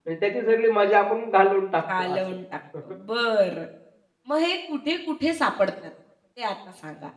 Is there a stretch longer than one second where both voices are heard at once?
No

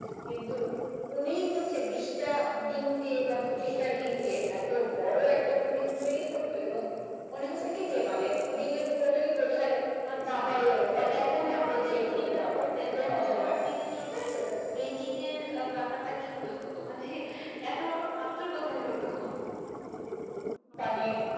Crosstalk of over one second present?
Yes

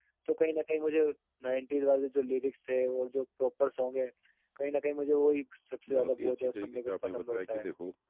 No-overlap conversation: No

